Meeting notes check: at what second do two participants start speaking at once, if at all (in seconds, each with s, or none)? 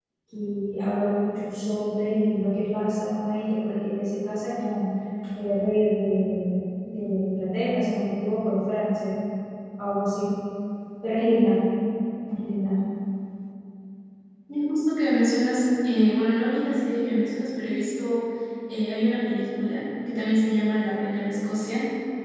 none